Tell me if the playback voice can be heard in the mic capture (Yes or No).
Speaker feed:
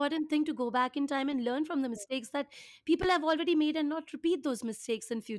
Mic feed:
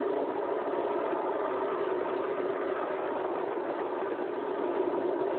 No